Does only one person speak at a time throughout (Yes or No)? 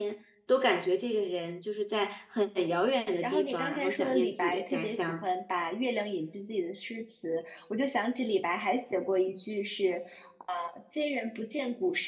No